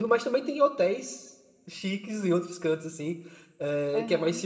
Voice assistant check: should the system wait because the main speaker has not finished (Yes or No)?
Yes